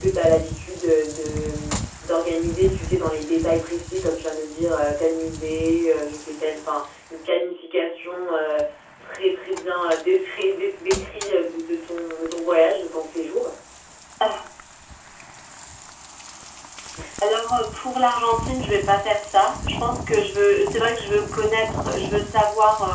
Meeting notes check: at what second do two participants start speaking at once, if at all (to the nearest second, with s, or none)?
none